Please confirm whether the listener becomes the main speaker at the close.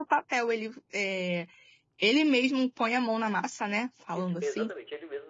Yes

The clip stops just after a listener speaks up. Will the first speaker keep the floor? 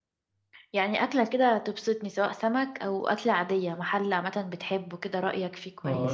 No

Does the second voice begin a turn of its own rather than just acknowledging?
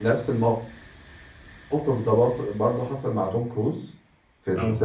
No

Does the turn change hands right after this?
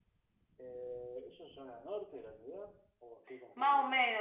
Yes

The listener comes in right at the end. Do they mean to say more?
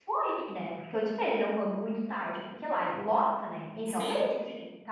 No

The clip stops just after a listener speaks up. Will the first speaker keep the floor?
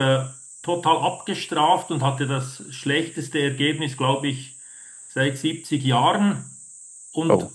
Yes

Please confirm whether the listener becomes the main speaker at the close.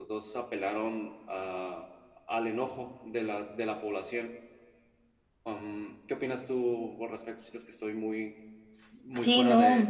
Yes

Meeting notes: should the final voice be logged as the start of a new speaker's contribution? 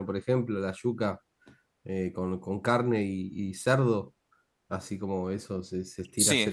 Yes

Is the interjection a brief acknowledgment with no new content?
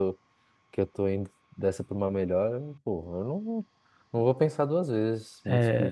No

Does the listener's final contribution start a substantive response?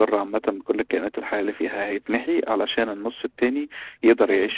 No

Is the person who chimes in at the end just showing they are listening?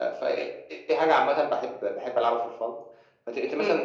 Yes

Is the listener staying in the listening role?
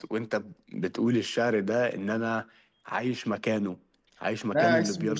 No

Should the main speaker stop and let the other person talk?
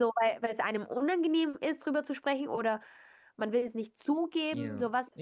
Yes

